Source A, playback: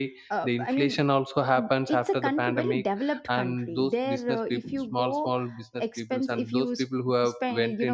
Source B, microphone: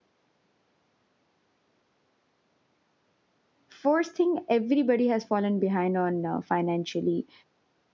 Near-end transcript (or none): first thing everybody has fallen behind on uh, financially